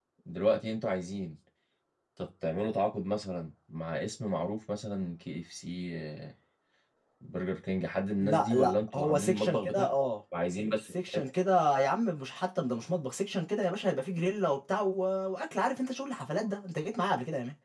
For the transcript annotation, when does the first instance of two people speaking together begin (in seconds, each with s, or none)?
8.2 s